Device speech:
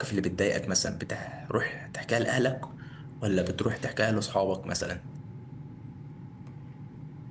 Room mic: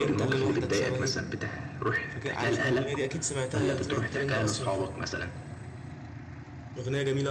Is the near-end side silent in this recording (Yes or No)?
No